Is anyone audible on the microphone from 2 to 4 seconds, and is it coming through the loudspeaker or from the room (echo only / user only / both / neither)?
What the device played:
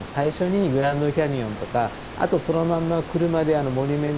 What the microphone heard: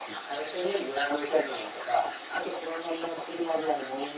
echo only